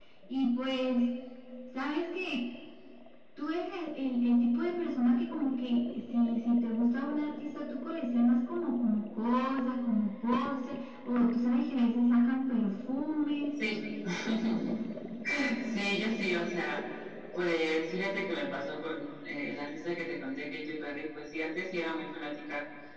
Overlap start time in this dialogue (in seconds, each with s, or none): none